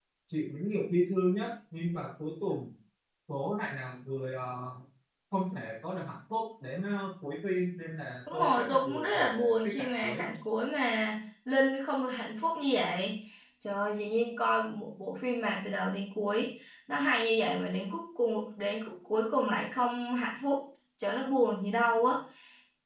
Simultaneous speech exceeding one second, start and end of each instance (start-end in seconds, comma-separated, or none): 8.3-10.2